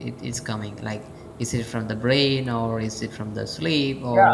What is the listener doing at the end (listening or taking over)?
taking over